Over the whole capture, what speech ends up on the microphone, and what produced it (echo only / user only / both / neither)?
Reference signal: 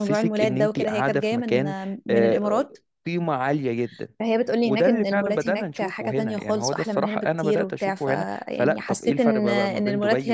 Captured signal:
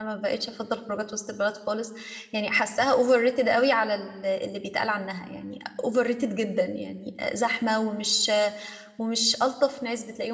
user only